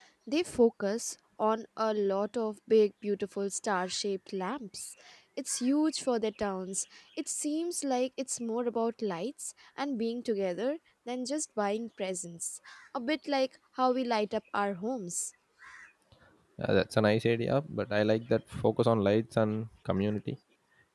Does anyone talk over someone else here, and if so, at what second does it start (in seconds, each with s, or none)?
none